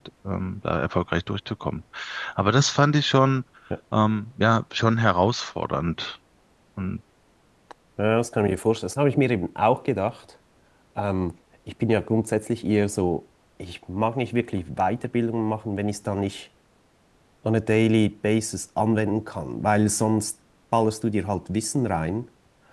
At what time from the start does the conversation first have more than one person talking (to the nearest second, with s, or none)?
none